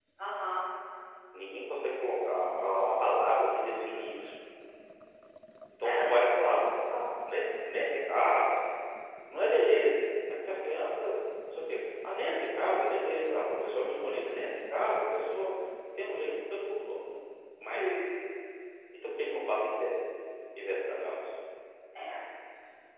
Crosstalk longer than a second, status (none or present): none